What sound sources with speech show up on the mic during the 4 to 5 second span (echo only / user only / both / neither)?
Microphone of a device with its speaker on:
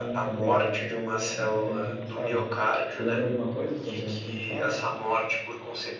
both